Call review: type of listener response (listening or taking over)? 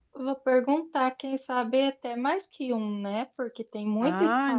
taking over